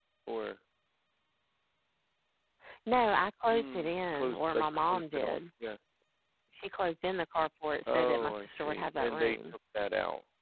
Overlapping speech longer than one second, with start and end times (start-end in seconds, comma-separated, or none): 3.5-5.4, 7.9-9.4